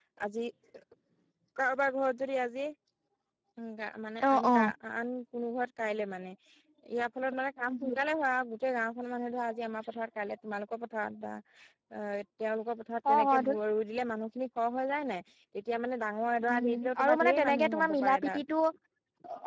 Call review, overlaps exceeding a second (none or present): present